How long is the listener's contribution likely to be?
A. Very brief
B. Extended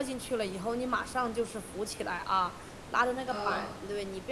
A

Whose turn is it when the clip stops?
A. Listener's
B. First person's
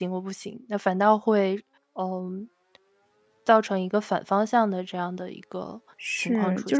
A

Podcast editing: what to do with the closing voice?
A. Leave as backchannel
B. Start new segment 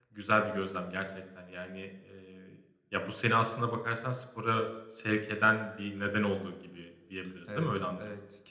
B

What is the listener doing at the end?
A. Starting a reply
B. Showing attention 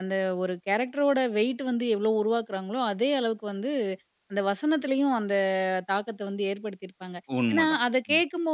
B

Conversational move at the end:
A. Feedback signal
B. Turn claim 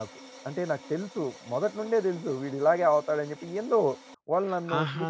B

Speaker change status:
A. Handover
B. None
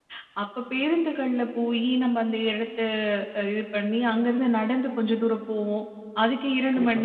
B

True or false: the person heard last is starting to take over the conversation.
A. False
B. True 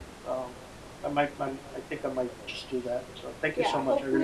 B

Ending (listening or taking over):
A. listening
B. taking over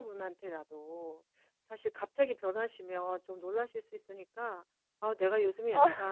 A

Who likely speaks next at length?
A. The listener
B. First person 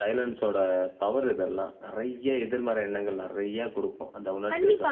A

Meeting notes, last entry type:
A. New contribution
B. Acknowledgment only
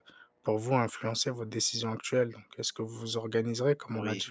B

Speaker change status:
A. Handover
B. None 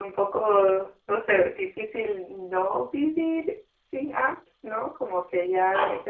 B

